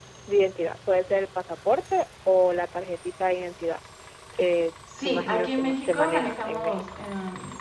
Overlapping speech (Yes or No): Yes